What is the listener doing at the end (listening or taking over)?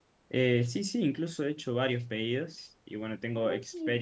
taking over